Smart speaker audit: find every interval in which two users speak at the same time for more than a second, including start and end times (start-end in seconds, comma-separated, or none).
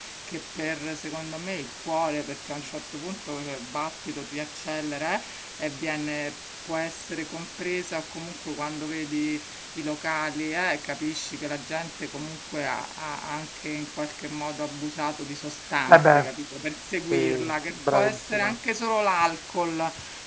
17.1-18.6